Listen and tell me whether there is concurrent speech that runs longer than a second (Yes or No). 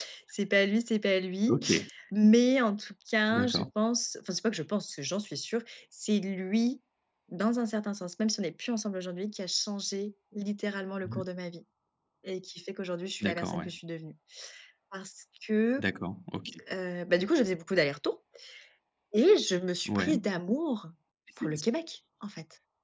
No